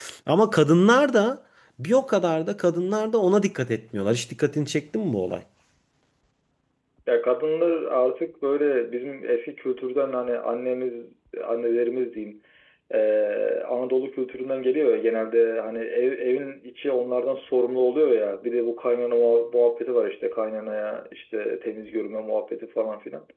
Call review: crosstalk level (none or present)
none